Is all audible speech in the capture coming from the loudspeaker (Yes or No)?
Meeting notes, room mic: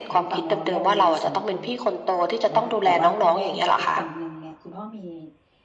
No